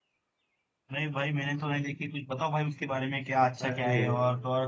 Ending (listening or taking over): listening